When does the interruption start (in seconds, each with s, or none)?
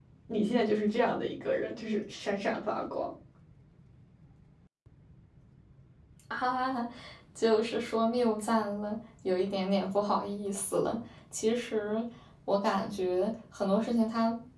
none